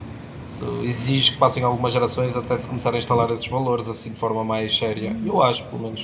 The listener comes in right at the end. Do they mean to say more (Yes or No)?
Yes